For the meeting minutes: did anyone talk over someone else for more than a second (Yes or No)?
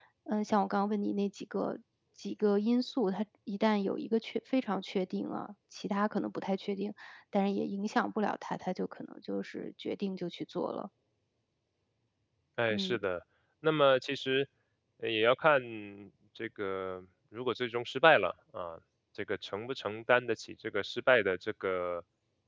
No